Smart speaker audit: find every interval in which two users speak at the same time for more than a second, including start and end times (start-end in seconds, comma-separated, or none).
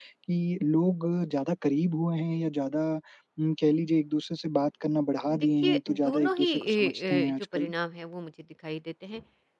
5.4-7.7